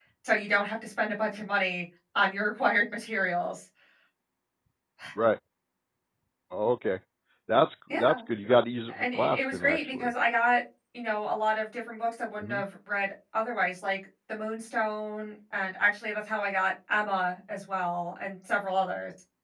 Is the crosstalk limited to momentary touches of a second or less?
No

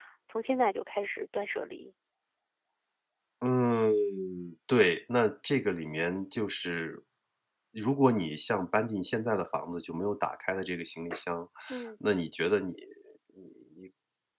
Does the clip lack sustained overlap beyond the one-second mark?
Yes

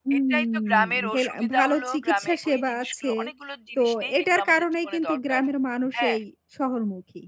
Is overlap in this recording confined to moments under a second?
No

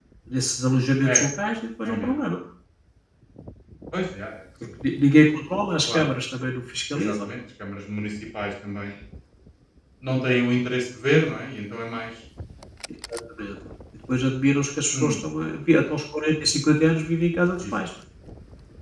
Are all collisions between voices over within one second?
Yes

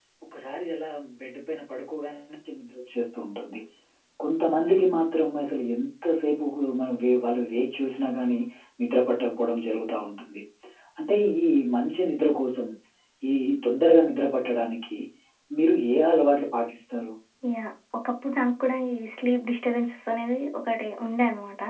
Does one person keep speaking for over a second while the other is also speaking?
No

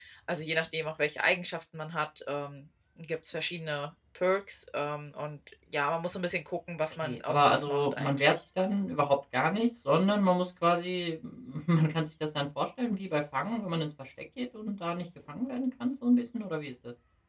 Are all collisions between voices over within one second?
No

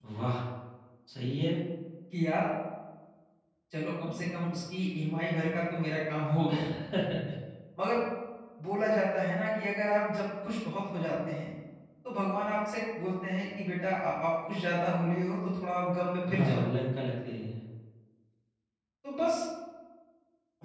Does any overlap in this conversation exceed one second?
No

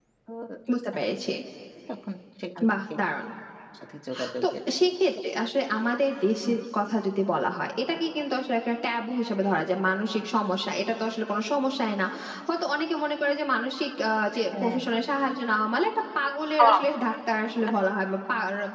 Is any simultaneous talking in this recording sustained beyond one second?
No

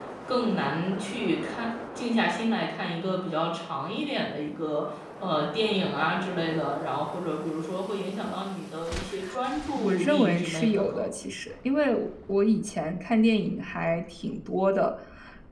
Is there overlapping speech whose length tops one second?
Yes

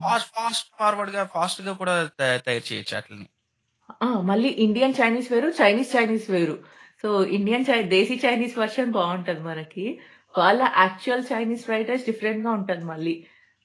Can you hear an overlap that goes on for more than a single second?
No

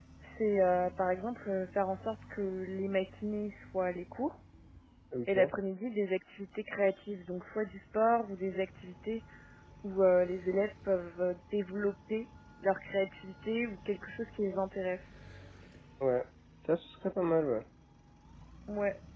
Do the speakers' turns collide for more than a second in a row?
No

